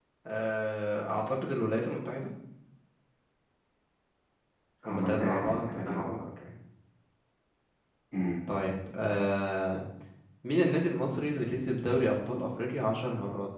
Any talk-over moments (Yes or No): Yes